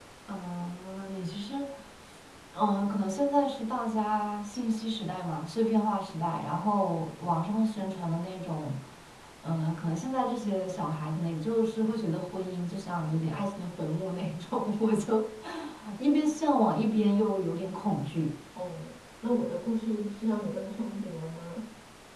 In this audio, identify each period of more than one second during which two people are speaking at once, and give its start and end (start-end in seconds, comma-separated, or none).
none